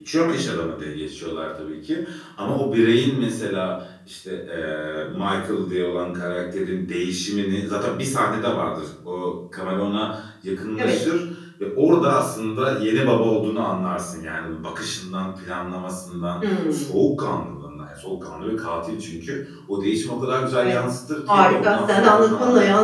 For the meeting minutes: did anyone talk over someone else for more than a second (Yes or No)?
Yes